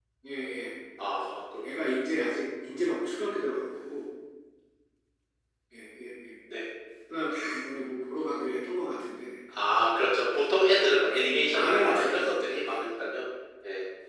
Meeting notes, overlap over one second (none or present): present